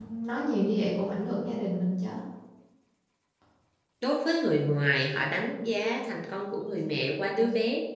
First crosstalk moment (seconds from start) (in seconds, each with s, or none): none